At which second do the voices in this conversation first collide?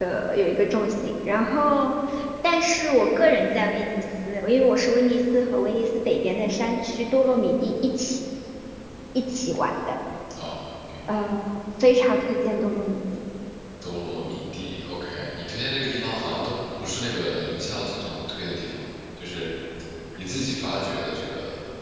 none

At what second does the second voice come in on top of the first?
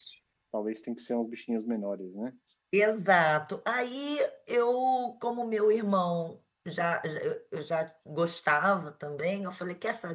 none

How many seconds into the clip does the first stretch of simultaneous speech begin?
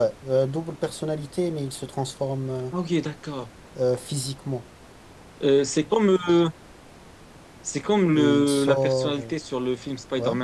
8 s

